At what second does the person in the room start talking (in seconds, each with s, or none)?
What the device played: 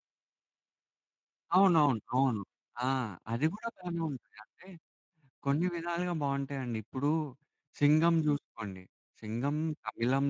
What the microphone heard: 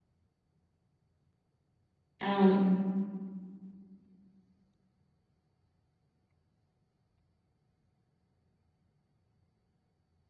2.2 s